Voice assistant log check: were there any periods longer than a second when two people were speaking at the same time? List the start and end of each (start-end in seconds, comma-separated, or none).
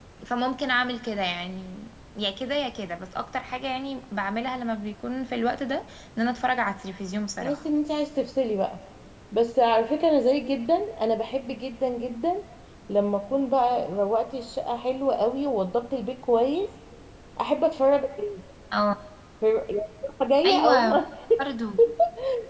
none